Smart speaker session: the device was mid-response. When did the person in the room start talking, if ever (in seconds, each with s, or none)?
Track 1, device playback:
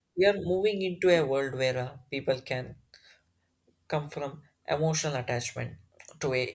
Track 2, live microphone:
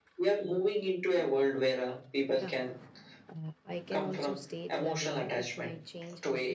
2.4 s